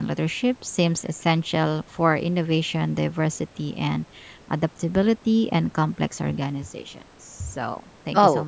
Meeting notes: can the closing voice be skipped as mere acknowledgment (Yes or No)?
No